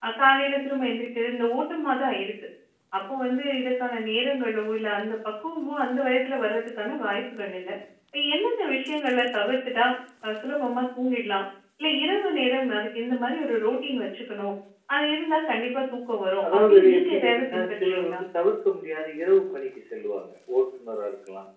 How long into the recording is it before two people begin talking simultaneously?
16.4 s

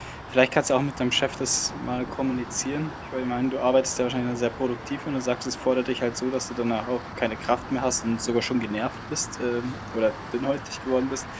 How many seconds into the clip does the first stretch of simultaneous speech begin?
none

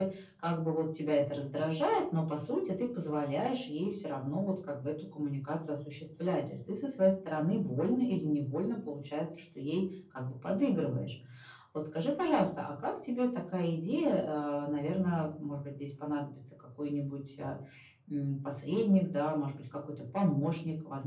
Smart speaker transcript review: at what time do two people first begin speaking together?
none

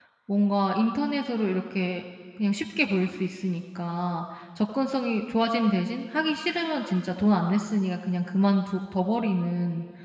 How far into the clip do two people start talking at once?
none

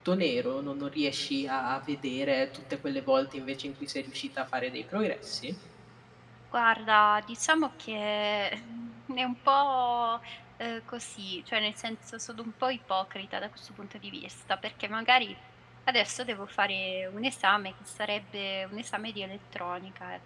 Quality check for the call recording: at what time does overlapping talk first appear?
none

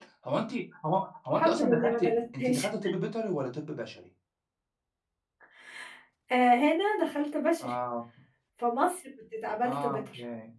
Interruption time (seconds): 1.3 s

